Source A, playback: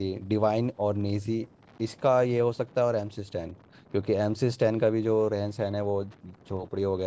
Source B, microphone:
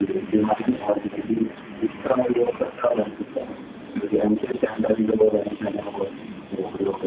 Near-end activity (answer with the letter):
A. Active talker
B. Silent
B